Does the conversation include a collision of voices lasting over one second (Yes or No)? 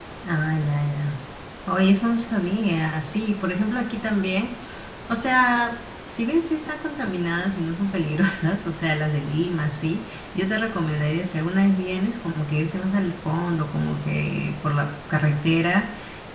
No